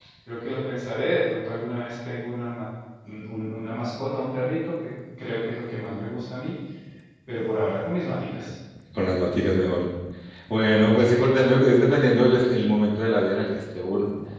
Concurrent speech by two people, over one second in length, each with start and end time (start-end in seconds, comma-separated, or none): none